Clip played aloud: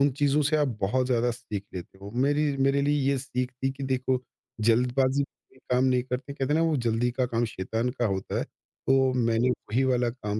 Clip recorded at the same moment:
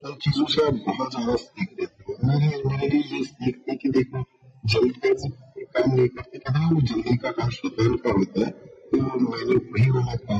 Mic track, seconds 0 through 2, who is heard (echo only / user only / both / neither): echo only